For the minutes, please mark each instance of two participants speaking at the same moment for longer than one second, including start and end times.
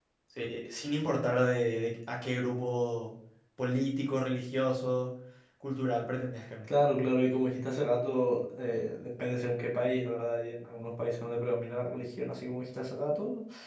none

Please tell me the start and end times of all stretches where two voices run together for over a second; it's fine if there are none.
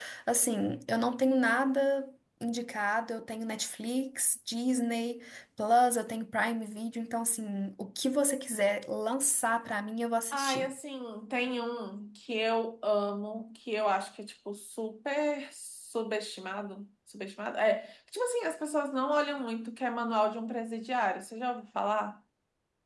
none

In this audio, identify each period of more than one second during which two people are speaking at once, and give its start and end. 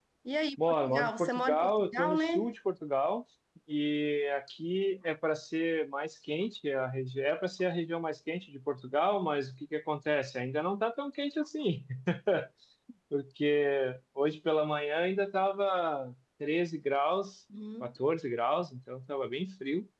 0.7-2.5

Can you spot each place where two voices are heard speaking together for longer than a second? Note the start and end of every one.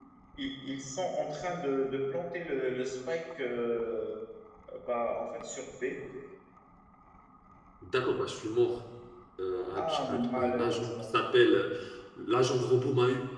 9.8-11.2

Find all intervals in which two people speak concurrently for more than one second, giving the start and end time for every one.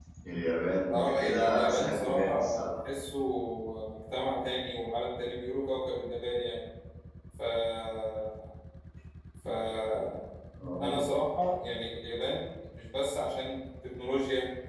0.8-2.7

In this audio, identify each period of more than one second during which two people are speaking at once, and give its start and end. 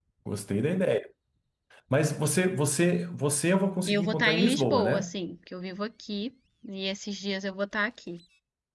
3.9-5.1

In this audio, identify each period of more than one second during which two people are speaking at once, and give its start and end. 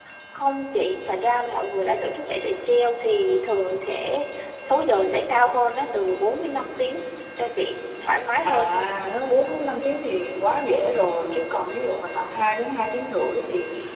none

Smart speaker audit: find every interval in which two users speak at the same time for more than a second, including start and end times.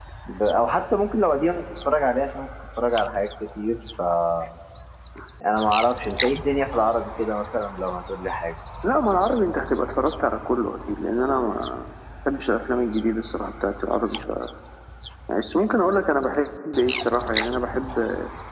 none

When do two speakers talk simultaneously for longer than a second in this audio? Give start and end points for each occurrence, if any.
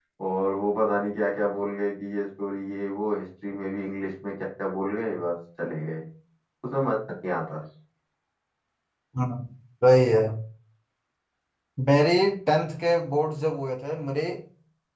none

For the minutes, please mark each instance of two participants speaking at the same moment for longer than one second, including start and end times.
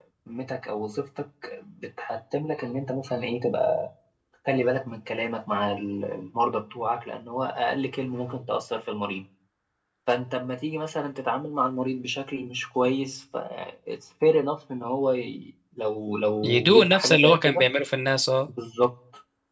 16.4-17.7

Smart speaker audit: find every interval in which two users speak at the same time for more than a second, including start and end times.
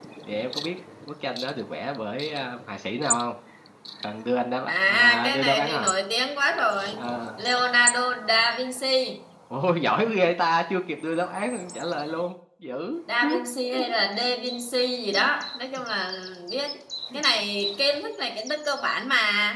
4.7-5.9

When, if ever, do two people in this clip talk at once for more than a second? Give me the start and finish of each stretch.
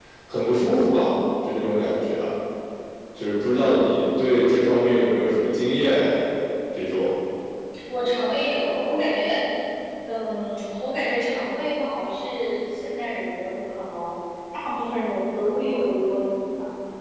none

